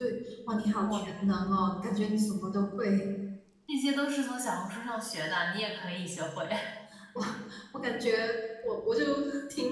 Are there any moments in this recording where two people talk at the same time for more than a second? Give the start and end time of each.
none

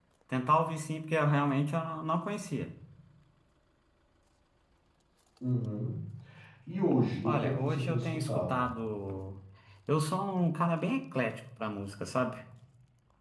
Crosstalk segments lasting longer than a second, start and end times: 7.2-8.6

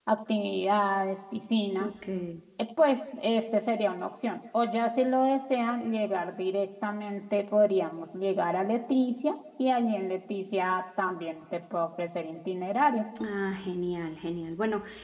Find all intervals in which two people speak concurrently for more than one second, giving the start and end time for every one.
none

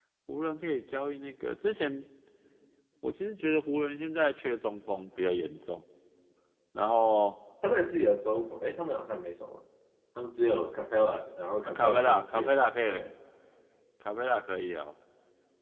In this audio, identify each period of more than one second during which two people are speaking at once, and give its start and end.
11.6-13.0

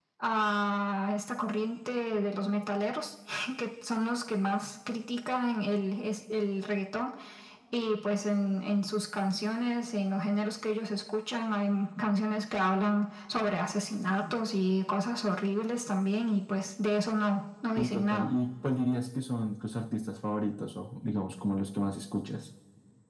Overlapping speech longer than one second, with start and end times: none

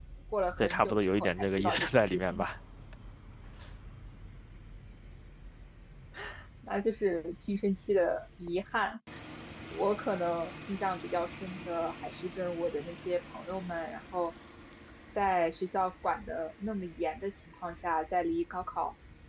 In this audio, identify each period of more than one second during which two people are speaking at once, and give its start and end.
0.6-2.5

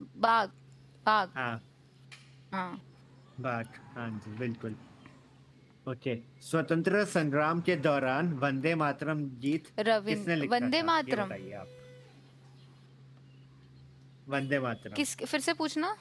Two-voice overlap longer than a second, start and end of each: 10.1-11.3

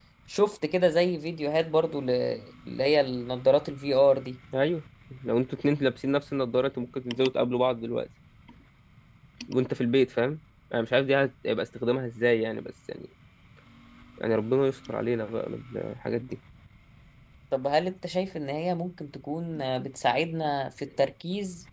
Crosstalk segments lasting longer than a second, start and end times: none

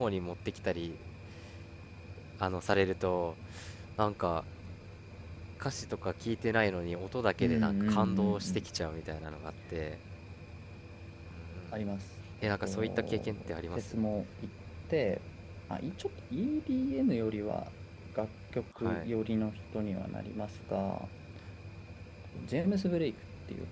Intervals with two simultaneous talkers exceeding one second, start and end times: 7.4-8.7, 12.4-13.9

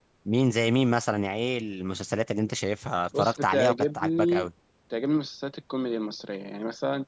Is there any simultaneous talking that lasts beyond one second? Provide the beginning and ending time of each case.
3.2-4.5

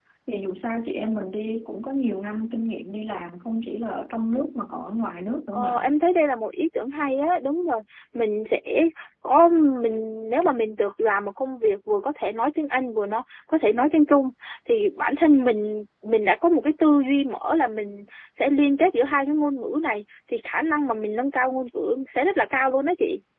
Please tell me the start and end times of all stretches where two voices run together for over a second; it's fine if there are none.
none

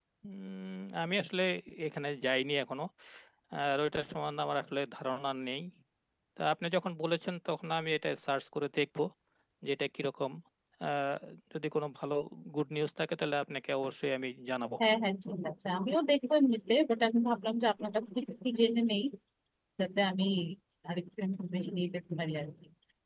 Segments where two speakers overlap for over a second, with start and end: none

